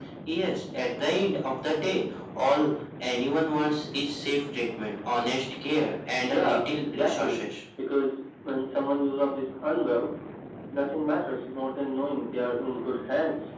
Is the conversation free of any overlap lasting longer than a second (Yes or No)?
No